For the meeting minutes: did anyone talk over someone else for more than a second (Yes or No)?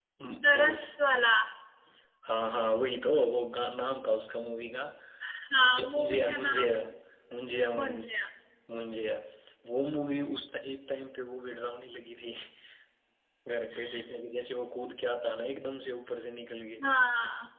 Yes